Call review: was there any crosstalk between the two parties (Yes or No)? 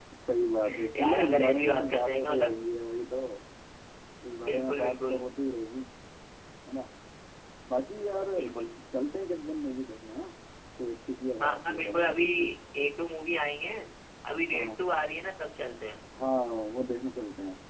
Yes